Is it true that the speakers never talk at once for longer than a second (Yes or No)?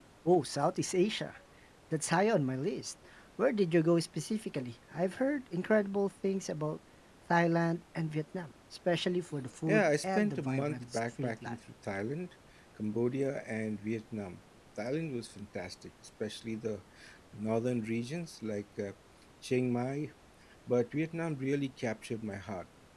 No